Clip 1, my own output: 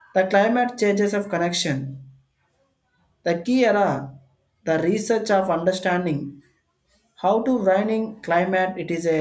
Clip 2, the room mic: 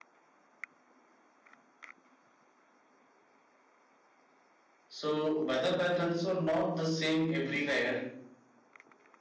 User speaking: Yes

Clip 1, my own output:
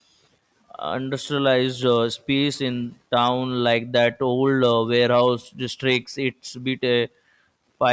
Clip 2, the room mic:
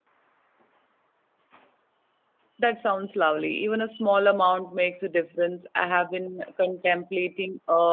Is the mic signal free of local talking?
No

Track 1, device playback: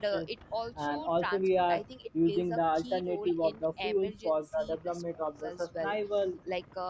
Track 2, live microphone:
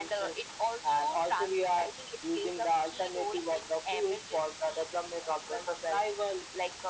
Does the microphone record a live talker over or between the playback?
No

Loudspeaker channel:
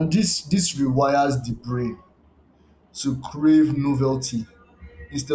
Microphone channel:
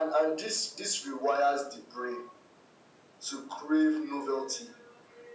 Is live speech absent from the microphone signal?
Yes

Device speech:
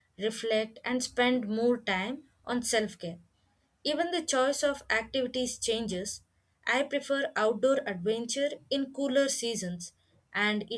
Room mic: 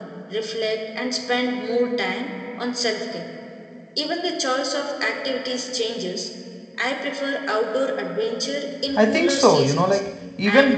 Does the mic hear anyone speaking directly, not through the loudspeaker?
Yes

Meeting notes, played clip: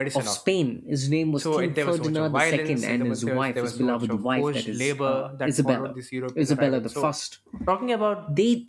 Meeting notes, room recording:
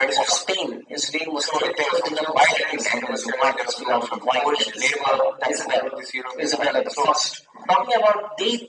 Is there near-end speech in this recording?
No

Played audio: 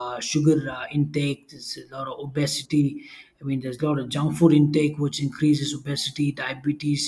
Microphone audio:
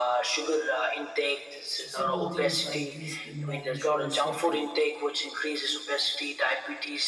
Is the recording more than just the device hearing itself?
Yes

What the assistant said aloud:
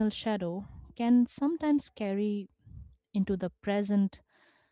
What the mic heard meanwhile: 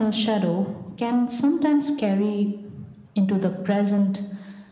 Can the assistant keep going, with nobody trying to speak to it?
Yes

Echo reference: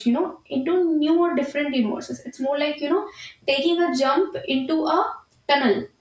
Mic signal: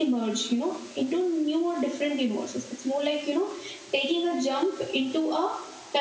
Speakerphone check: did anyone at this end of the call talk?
No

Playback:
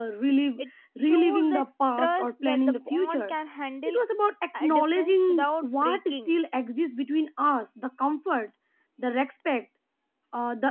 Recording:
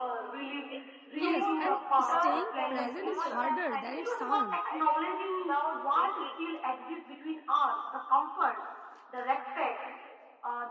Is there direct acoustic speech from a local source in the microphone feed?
Yes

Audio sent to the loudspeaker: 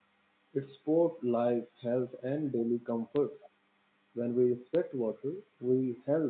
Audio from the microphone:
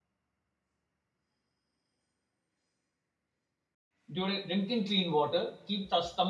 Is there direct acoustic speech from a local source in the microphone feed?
Yes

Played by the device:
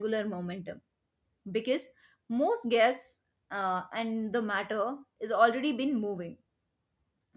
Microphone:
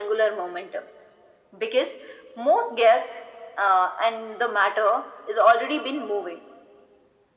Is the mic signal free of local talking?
Yes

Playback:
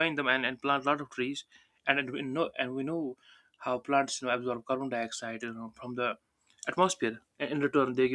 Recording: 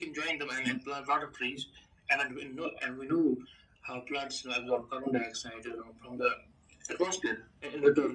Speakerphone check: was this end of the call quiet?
Yes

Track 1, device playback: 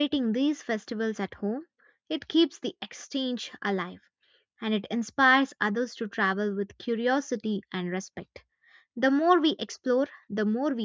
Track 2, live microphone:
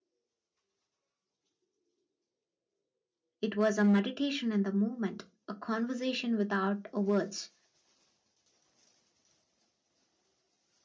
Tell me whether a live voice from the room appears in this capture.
Yes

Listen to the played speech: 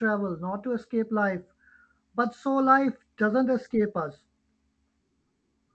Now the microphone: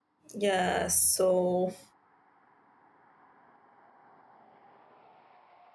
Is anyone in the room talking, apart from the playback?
Yes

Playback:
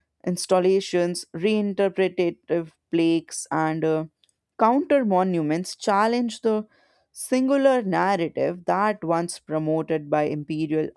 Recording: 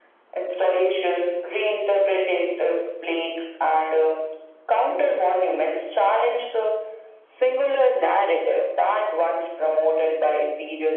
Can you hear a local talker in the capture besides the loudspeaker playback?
No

